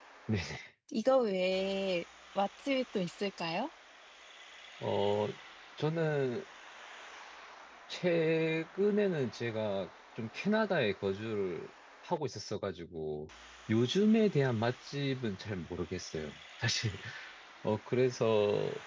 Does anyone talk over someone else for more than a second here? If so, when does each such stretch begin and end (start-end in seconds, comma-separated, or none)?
none